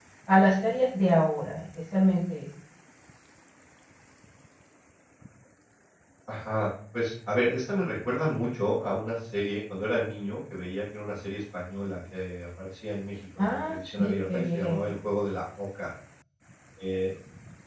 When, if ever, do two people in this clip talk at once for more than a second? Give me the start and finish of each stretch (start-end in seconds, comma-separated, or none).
13.4-14.9